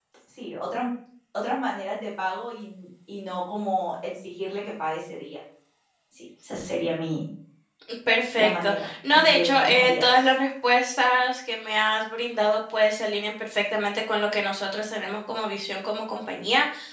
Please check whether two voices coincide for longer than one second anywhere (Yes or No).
Yes